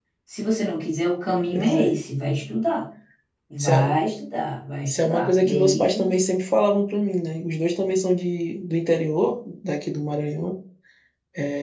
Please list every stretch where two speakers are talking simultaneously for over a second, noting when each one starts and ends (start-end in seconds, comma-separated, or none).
4.9-6.2